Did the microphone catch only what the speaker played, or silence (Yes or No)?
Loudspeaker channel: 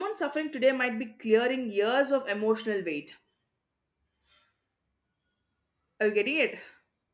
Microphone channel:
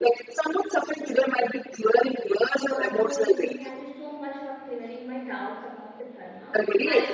No